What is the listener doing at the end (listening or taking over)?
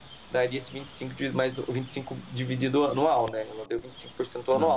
taking over